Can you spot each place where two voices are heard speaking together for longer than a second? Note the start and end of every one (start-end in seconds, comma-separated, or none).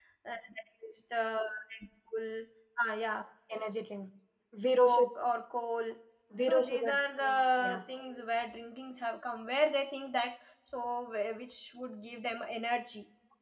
6.4-7.8